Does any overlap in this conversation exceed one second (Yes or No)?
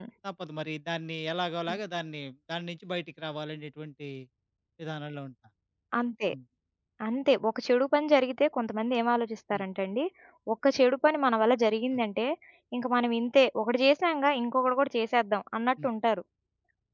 No